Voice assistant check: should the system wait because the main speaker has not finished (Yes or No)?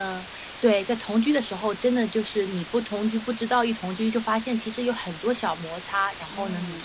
Yes